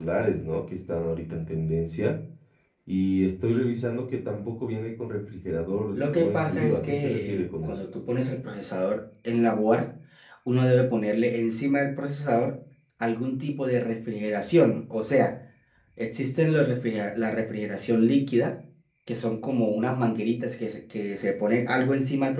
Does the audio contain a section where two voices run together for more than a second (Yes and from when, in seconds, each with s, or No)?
Yes, from 5.9 s